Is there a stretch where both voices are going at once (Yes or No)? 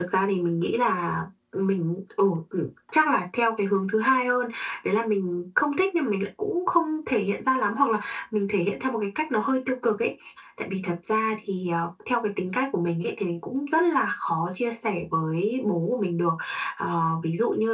No